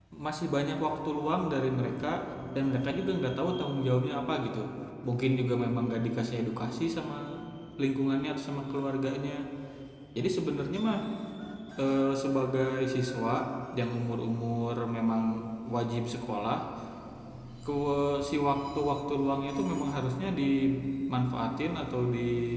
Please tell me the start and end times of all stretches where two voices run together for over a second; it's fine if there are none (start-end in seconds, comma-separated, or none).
none